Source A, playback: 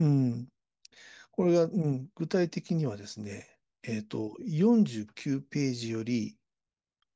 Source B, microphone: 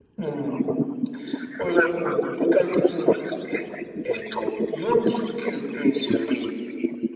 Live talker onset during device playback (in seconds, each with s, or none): none